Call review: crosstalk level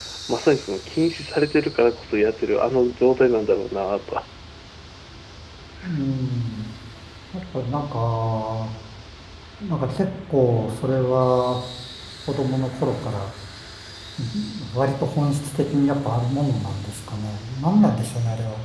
none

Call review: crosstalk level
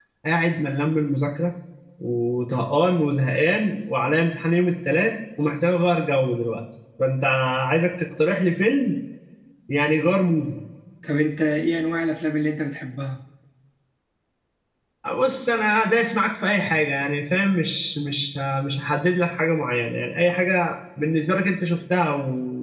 none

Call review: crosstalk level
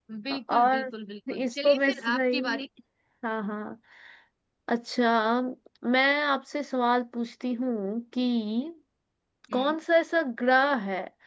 present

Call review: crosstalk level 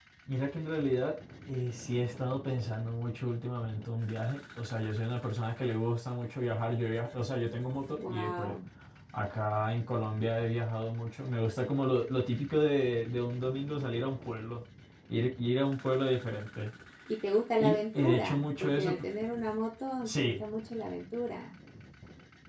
present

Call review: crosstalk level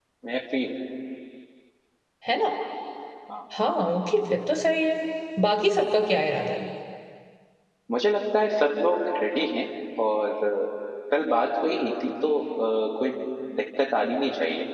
none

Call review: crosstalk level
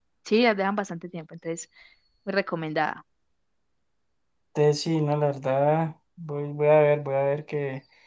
none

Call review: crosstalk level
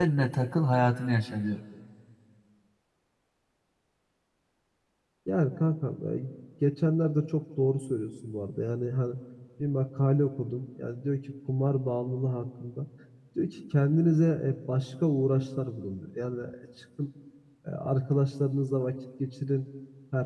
none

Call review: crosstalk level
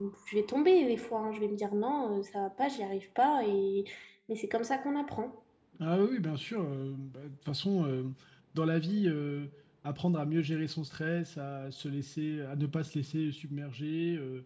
none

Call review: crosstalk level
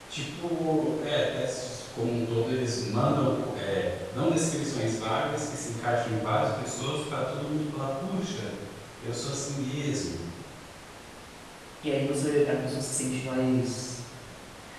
none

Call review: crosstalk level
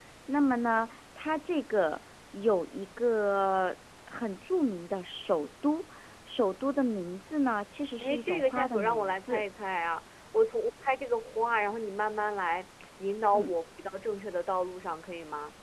present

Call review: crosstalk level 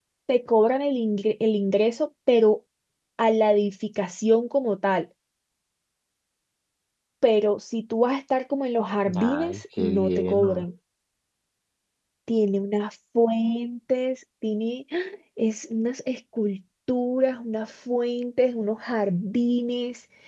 present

